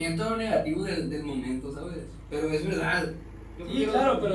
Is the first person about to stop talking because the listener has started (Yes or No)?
Yes